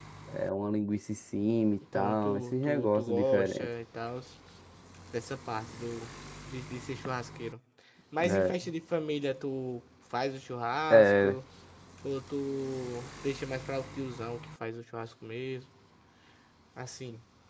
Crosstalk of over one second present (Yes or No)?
Yes